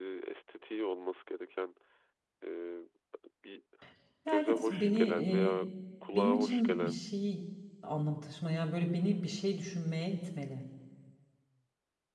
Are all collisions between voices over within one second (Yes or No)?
No